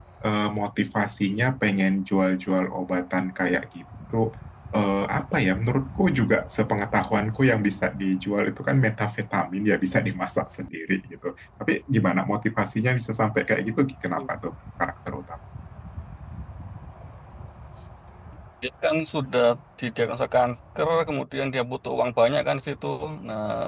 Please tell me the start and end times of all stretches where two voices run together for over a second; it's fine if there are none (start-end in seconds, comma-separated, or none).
none